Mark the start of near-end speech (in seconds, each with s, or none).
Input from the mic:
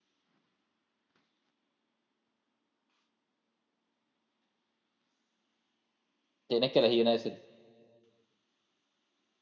6.5 s